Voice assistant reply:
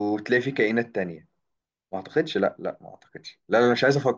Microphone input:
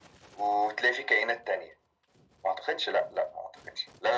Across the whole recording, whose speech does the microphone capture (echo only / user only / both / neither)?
echo only